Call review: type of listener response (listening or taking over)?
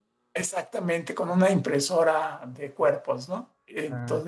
taking over